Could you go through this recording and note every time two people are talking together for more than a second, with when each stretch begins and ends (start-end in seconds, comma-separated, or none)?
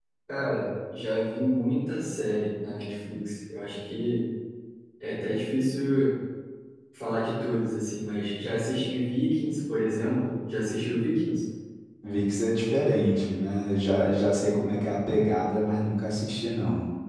none